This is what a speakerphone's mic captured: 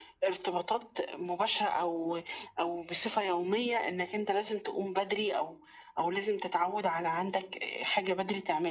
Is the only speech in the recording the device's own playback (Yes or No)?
Yes